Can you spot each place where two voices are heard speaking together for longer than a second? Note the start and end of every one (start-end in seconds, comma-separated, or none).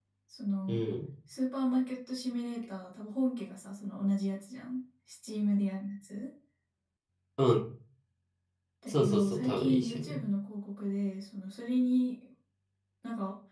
8.9-10.2